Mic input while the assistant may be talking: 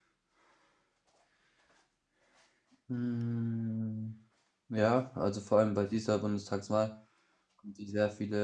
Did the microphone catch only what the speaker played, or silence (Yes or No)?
No